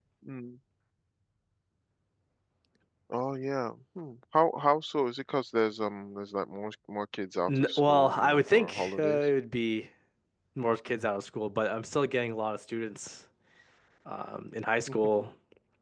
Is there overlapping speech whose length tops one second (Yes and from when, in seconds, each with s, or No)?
Yes, from 7.5 s